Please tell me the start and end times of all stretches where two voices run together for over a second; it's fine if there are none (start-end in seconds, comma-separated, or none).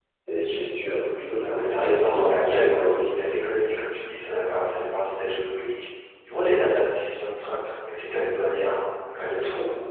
1.4-3.2